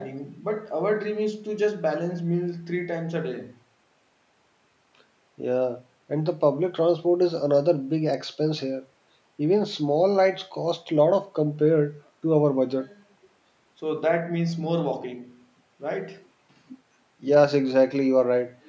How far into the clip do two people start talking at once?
none

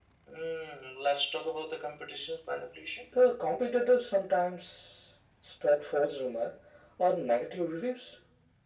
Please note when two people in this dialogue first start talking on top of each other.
none

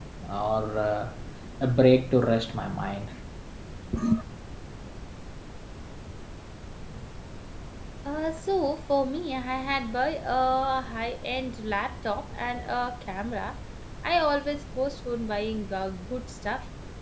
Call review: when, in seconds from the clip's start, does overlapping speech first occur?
none

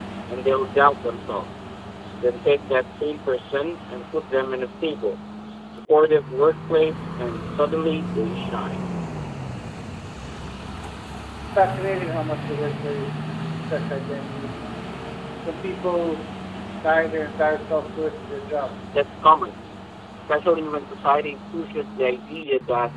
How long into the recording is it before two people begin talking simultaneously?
none

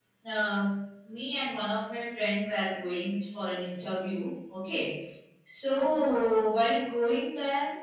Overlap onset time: none

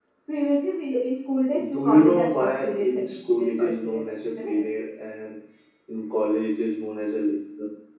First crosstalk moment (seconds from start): 1.5 s

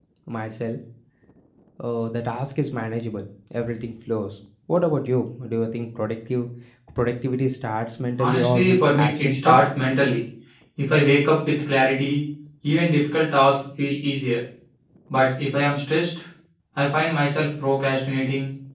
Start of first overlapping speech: 8.2 s

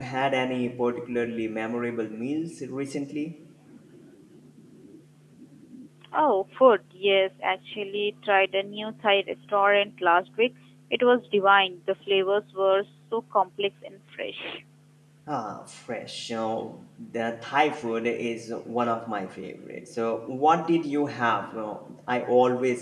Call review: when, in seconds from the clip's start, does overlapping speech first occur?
none

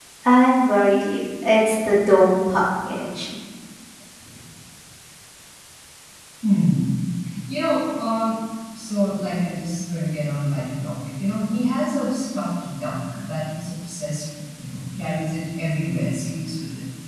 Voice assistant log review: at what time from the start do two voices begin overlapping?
none

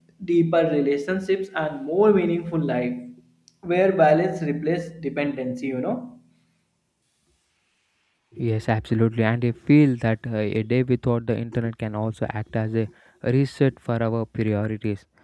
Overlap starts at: none

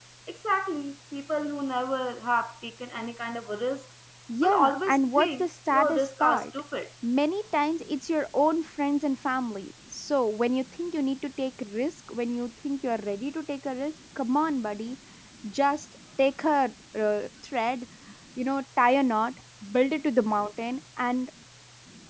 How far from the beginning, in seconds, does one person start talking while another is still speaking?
4.4 s

